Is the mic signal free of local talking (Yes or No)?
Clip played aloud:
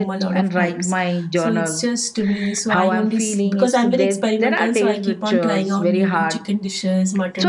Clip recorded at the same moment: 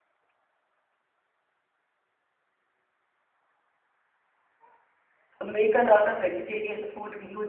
No